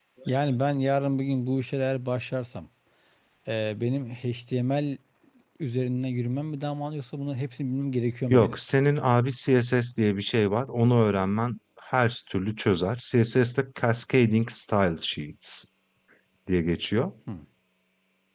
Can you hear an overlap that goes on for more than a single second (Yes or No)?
No